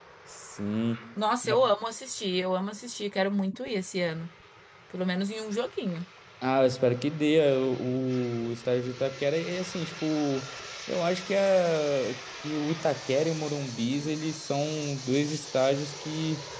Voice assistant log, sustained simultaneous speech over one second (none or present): none